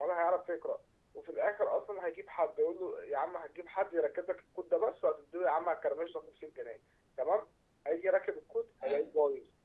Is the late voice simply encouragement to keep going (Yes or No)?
Yes